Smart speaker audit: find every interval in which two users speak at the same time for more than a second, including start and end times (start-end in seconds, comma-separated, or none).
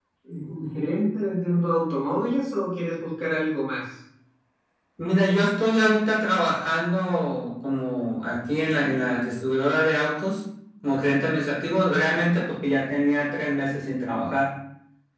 none